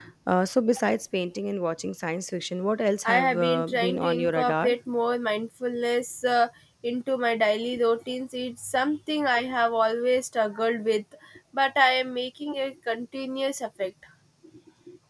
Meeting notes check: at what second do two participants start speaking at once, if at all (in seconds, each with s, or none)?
3.0 s